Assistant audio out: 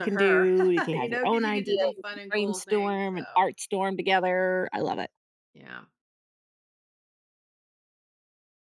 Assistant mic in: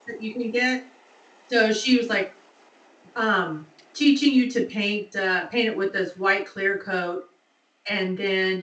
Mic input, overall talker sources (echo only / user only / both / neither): user only